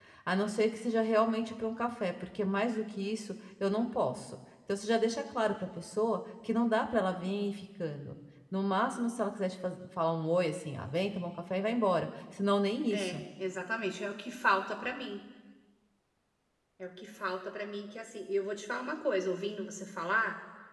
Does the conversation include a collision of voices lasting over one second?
No

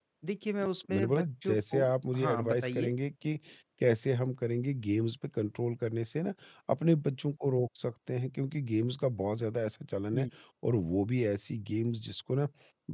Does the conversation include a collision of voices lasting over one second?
Yes, from 0.9 s

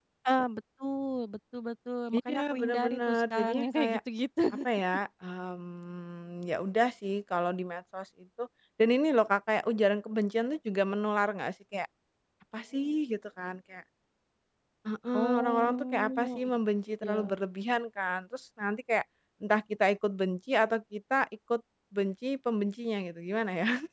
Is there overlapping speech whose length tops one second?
Yes, from 2.1 s

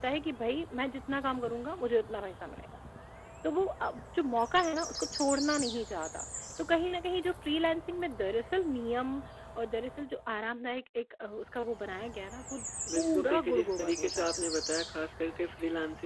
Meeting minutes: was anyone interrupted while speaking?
Yes, from 12.9 s

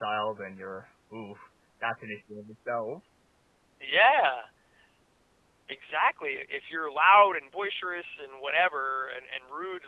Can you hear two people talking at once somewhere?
No

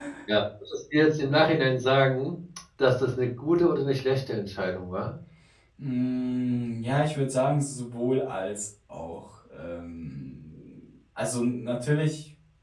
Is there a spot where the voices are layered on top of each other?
No

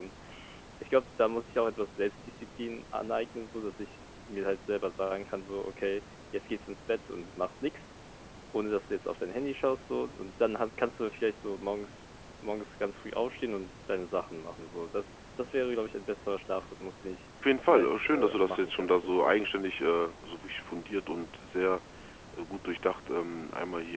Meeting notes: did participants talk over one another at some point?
Yes, from 17.7 s

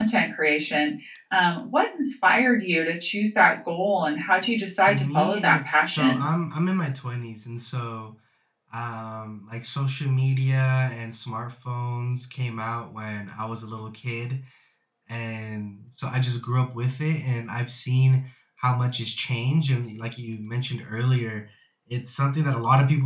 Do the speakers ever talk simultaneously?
Yes, from 4.9 s

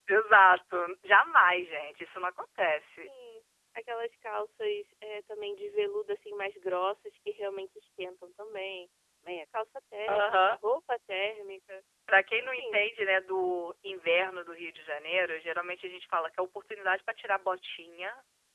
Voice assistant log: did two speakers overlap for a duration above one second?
No

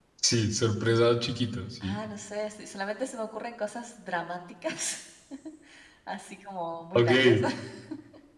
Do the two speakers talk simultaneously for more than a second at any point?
No

